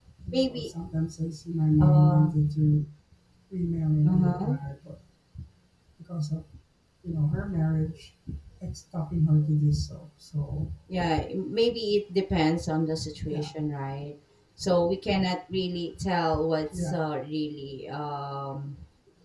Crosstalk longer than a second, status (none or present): none